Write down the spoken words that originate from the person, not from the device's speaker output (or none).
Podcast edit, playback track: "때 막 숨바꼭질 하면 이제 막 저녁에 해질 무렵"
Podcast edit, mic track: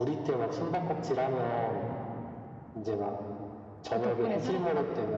그 덕분에 살았다.